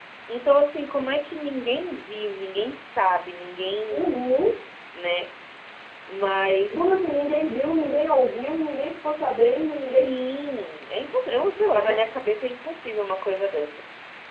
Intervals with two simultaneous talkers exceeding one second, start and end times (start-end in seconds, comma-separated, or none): none